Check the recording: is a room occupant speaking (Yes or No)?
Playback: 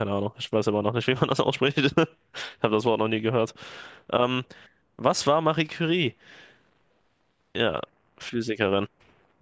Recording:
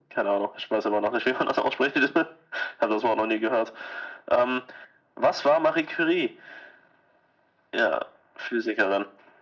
No